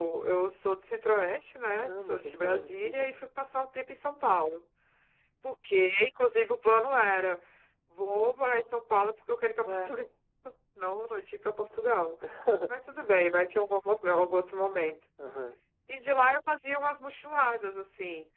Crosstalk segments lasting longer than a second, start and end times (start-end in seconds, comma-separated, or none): 1.7-3.2